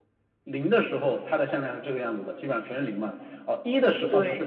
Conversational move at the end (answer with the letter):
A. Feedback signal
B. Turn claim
A